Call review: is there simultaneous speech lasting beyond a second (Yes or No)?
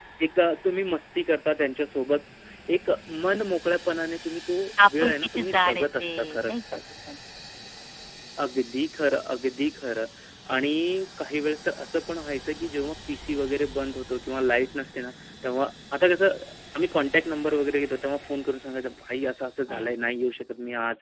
Yes